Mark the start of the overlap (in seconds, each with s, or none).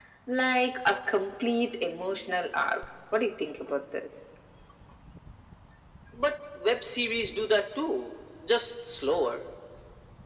none